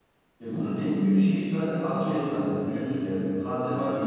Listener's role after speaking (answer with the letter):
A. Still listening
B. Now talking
A